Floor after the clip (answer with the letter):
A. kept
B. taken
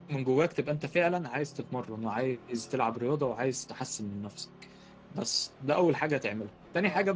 A